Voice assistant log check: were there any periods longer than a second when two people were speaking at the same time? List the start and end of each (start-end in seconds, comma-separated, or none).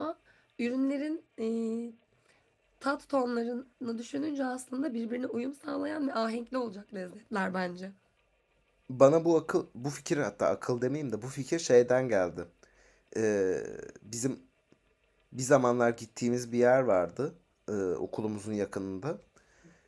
none